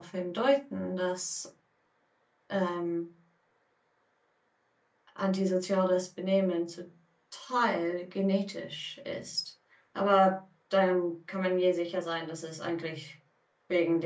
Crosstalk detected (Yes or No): No